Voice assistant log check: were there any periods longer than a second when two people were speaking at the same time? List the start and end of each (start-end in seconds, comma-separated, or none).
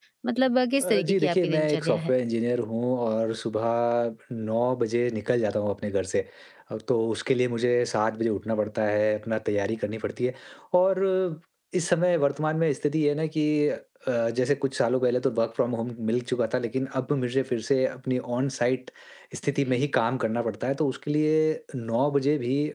0.8-2.1